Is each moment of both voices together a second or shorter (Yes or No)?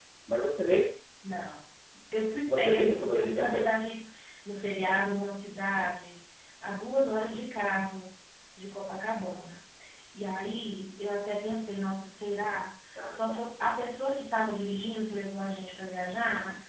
No